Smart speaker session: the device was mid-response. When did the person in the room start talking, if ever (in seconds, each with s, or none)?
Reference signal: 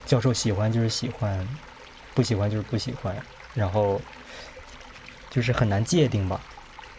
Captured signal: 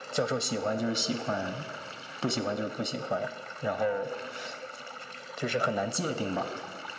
none